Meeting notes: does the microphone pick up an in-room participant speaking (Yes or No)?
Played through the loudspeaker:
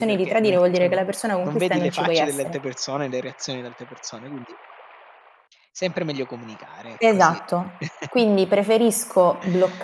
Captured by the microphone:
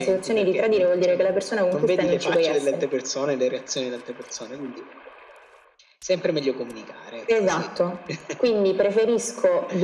No